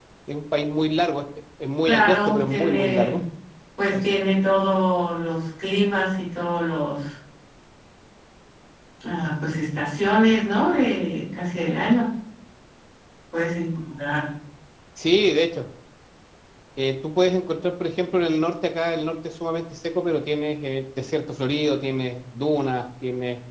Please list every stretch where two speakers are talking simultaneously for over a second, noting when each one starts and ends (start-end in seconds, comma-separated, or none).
1.9-3.2